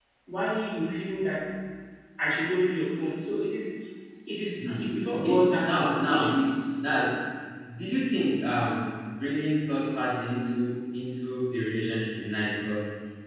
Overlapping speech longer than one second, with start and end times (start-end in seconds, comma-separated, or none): 4.6-6.3